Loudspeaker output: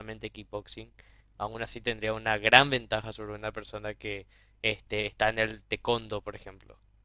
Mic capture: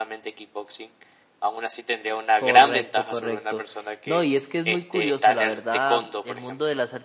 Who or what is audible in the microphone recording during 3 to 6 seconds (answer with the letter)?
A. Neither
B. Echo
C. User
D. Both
D